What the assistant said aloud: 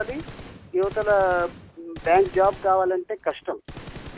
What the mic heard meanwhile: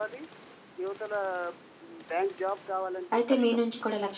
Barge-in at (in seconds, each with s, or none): 3.1 s